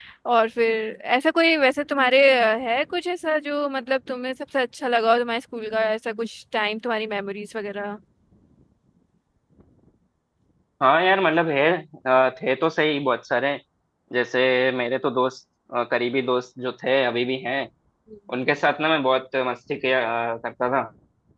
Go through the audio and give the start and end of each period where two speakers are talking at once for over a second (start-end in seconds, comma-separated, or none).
none